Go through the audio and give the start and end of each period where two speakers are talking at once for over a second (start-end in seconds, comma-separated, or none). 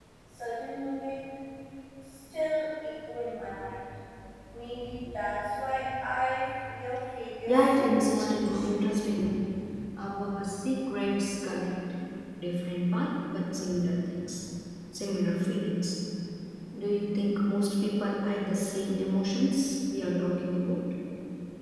7.5-8.7